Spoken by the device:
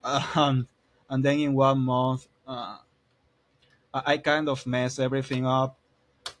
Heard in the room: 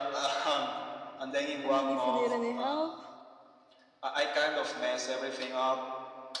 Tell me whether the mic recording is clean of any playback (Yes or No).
No